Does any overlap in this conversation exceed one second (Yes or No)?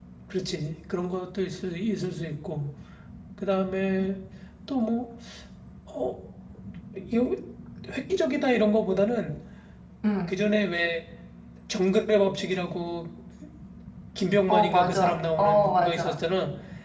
Yes